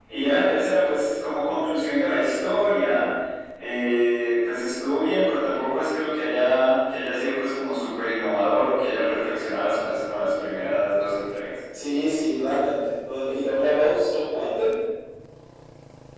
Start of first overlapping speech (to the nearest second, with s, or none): none